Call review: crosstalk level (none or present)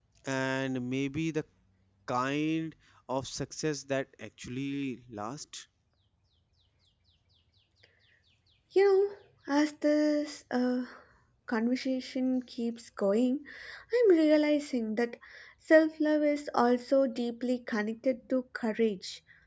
none